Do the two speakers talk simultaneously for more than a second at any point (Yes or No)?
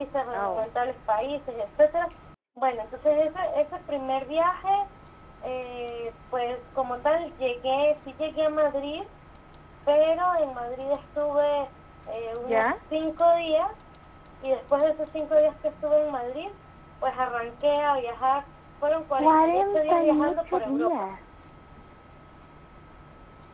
Yes